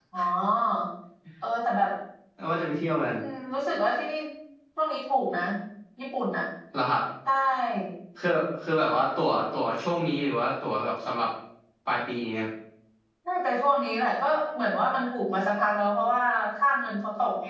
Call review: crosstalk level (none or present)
none